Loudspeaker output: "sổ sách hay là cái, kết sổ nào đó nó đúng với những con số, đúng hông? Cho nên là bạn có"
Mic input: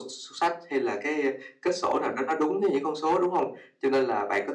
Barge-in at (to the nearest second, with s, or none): none